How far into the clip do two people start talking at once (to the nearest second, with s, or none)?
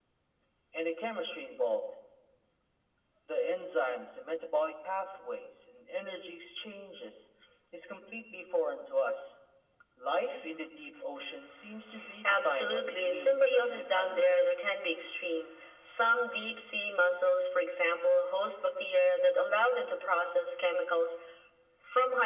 12 s